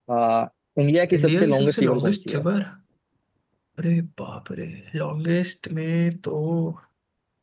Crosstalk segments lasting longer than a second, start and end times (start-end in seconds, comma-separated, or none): 1.1-2.4